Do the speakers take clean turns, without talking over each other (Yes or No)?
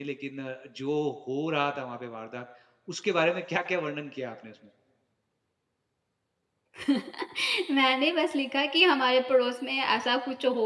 Yes